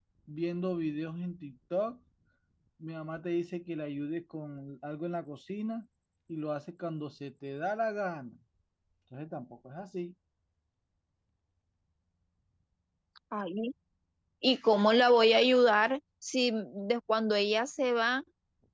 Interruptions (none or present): none